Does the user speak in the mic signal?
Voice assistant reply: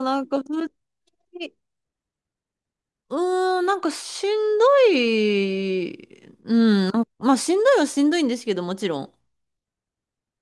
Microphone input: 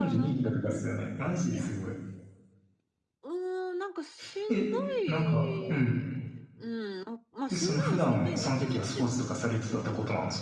Yes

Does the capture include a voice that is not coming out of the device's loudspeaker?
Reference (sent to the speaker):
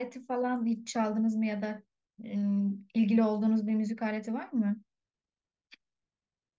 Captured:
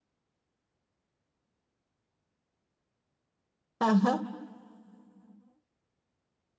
Yes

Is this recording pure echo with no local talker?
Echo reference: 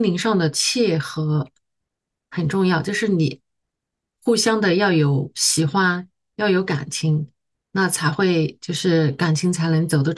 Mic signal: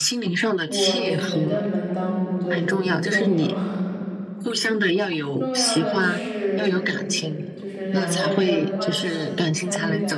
No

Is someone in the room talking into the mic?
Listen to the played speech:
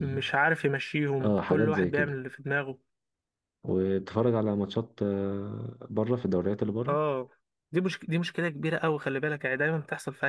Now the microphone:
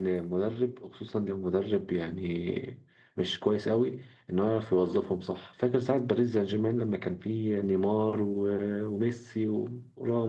Yes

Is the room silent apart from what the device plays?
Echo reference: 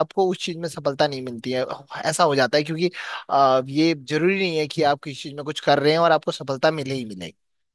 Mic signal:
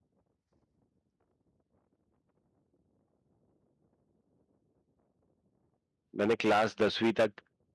No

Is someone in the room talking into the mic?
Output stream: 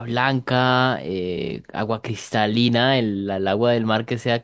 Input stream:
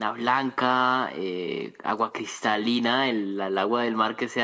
No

